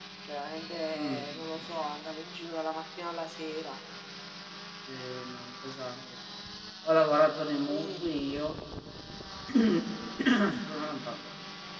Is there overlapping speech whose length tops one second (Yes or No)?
No